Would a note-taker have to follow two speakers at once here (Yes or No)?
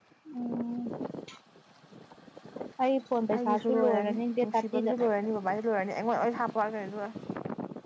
Yes